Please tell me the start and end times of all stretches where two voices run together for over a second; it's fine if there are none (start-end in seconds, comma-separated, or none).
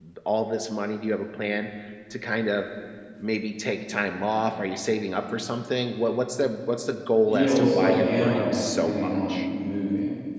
7.3-9.5